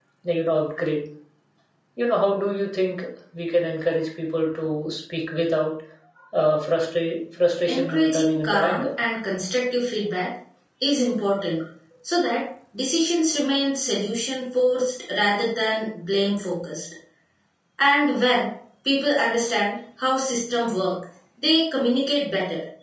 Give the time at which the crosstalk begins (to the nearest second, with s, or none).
8 s